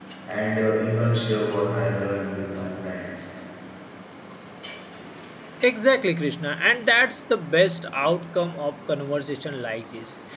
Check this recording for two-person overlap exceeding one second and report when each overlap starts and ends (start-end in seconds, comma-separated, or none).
none